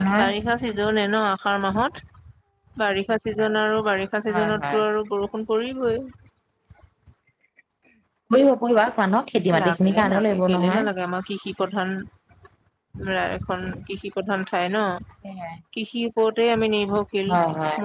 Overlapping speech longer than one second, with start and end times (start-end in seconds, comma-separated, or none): 9.6-10.8